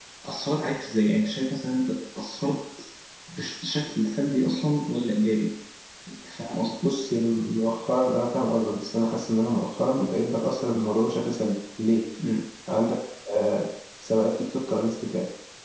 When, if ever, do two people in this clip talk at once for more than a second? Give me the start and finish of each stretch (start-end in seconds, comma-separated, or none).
none